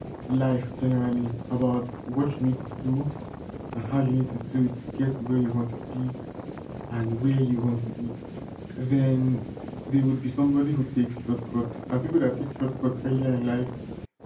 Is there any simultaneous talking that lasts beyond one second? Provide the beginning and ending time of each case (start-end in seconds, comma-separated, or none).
none